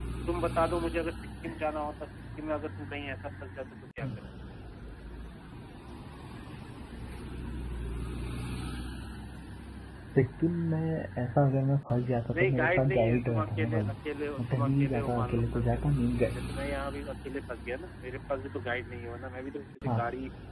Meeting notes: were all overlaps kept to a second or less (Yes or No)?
No